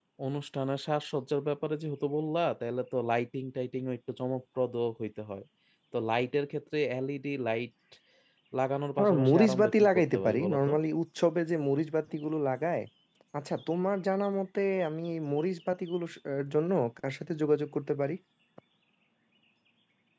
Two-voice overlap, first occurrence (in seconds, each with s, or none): 9.0 s